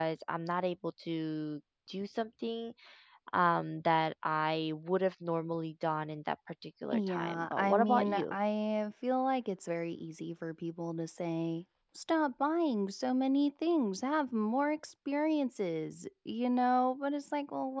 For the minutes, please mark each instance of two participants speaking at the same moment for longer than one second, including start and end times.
6.9-8.3

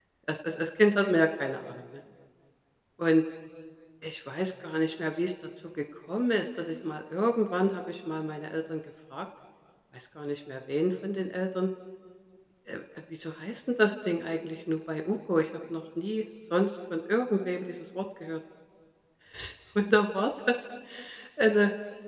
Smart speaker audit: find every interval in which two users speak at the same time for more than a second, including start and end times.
none

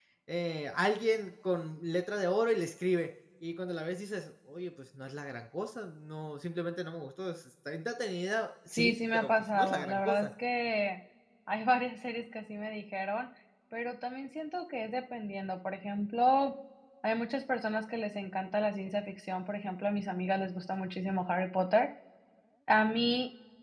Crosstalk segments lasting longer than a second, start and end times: 8.7-10.3

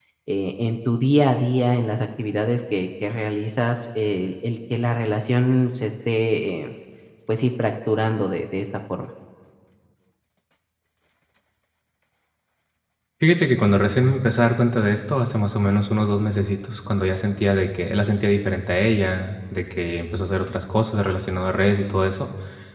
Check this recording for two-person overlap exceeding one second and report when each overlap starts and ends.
none

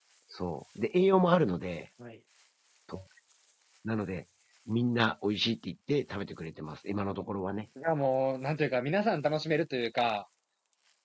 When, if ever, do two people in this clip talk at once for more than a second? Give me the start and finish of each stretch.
none

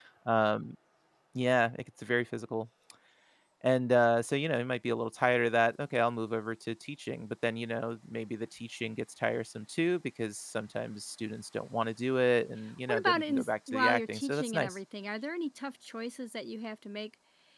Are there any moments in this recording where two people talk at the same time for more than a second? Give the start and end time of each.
12.9-14.8

